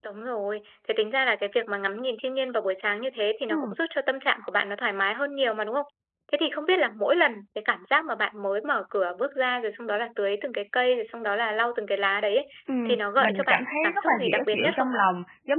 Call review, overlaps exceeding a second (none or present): present